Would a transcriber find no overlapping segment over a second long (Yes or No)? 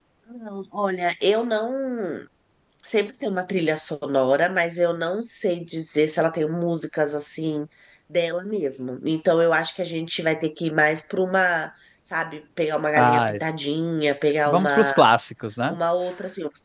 Yes